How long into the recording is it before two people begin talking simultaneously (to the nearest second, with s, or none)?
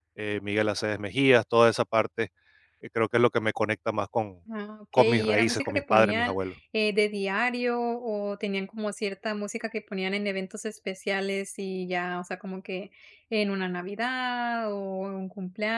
5 s